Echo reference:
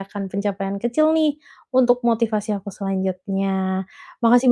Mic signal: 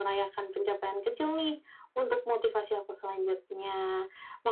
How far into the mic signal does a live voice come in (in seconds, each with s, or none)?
none